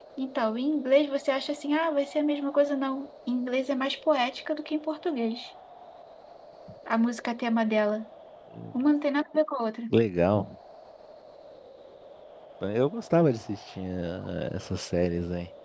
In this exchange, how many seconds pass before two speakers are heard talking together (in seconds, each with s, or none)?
none